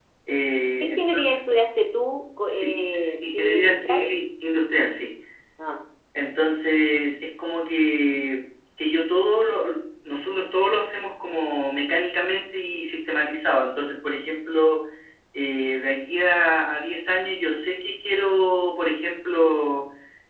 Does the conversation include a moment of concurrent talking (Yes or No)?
Yes